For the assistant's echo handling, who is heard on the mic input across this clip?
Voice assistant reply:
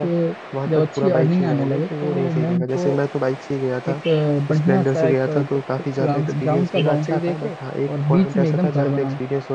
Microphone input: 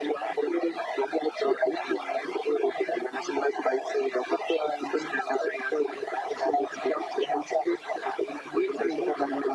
echo only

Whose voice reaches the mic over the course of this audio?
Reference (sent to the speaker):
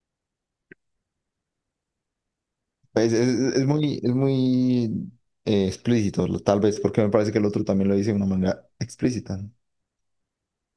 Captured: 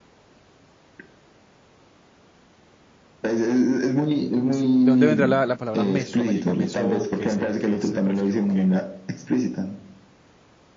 both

